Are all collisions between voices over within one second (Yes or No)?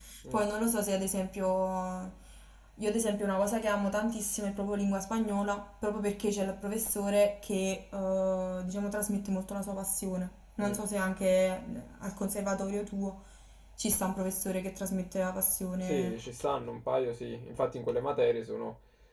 Yes